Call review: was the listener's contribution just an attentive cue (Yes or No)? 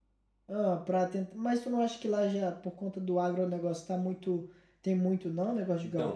No